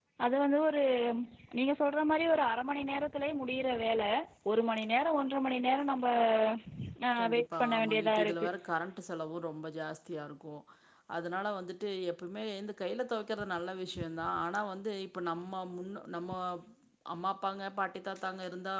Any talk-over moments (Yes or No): Yes